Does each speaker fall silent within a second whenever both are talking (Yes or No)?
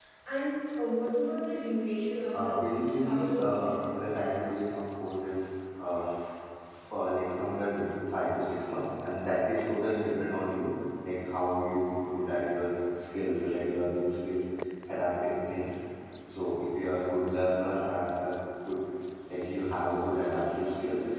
No